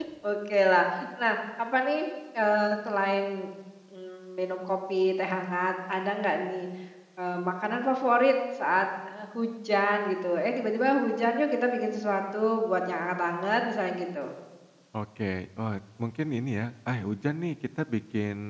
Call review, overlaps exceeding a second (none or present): none